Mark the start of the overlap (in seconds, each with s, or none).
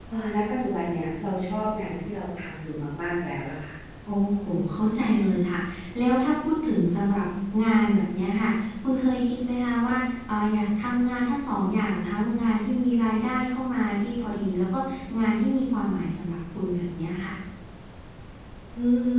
none